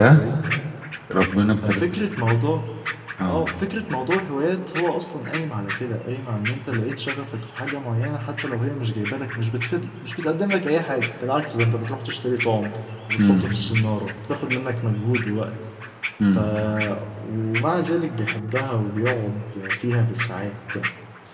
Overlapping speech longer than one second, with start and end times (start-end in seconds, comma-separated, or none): none